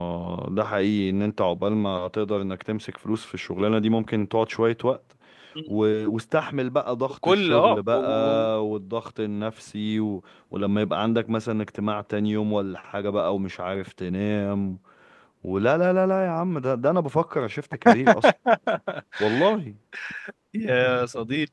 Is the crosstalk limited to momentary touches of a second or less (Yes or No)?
No